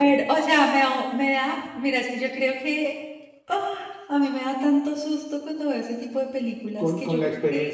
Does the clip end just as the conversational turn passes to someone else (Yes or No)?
Yes